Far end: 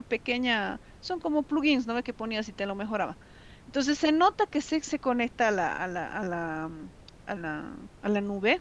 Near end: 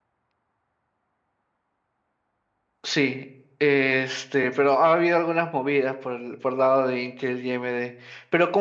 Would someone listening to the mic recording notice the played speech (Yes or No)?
No